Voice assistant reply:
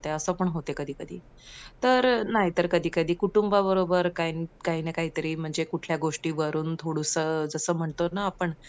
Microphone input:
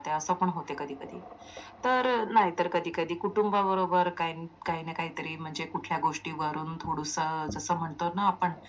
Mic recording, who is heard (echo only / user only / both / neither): echo only